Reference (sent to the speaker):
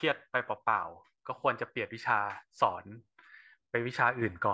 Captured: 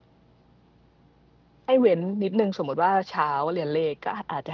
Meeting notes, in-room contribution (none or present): present